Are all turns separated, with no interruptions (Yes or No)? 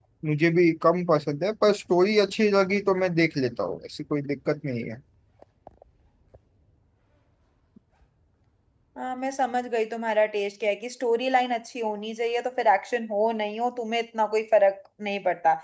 Yes